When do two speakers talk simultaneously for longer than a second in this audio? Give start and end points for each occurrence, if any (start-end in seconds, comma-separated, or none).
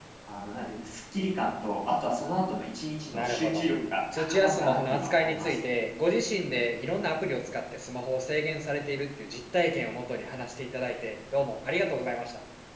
4.2-5.6